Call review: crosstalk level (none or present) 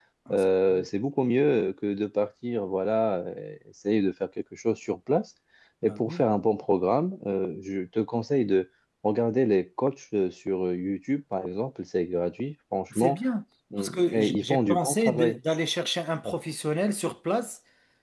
present